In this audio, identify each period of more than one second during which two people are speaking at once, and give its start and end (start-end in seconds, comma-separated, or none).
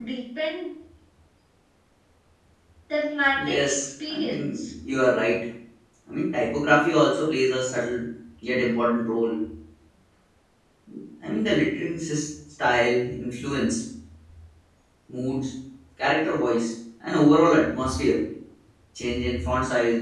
3.4-4.7